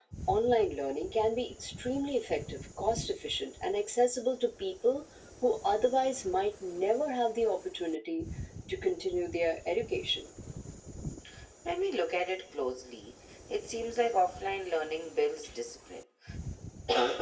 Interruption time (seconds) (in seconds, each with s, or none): none